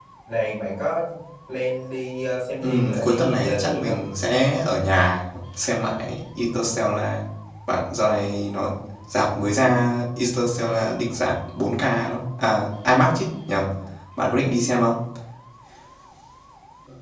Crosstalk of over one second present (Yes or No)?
Yes